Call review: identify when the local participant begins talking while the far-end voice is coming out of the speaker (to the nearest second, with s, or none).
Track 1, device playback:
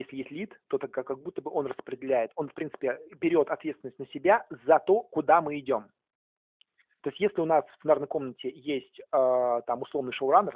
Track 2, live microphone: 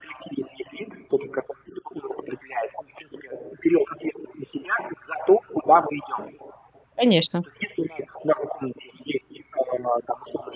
7 s